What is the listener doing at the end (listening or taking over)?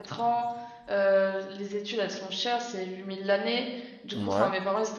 listening